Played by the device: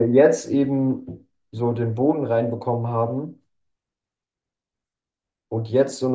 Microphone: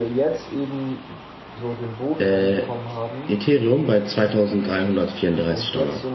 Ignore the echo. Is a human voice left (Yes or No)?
Yes